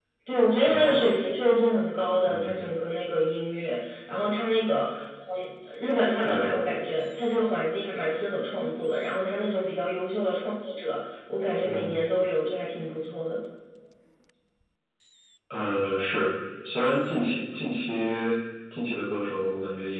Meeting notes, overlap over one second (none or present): none